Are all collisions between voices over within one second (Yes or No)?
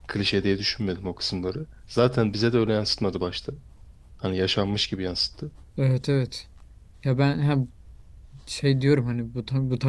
Yes